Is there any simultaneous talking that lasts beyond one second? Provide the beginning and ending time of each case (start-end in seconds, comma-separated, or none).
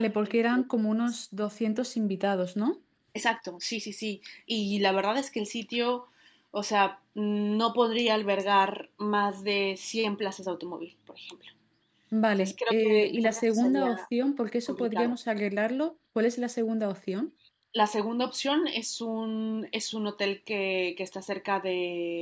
12.4-13.9